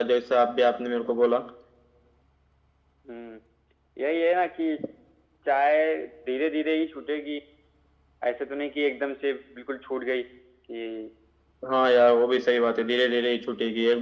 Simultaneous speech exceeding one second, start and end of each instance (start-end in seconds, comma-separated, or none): none